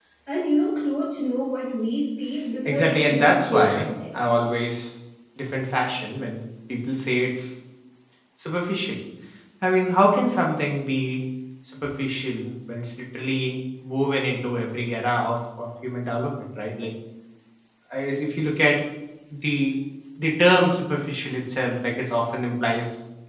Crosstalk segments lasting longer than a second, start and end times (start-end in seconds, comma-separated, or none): 2.6-3.9